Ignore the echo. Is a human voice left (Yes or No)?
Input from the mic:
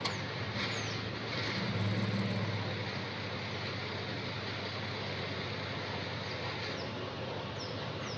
No